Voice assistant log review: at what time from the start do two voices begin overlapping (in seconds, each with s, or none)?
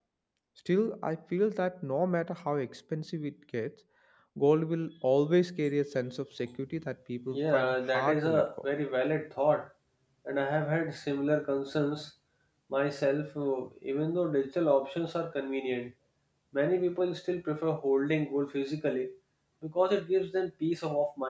7.3 s